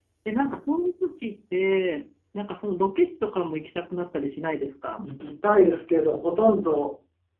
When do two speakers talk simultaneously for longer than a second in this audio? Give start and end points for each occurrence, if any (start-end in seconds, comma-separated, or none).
none